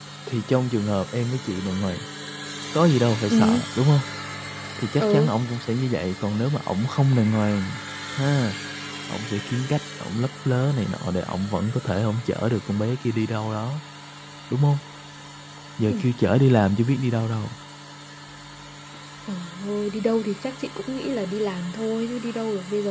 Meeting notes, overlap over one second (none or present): none